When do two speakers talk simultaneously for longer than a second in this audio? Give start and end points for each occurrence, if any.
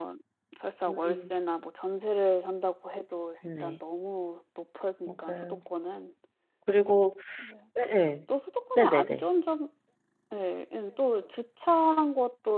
none

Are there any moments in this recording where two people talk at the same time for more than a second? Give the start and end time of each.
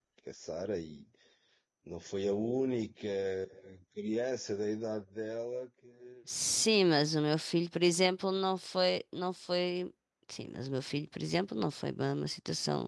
none

